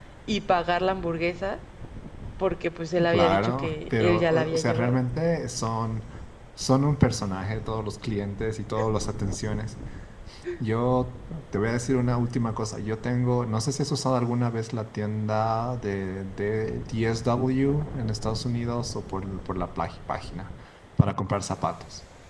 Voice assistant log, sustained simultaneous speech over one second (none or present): present